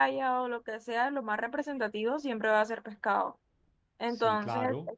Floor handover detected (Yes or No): No